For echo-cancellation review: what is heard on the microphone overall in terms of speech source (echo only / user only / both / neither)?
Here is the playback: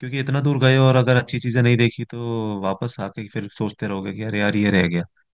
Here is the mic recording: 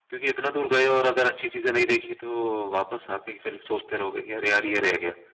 echo only